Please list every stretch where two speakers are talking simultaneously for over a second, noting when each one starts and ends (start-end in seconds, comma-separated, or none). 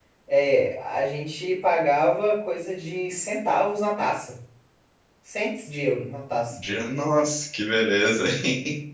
none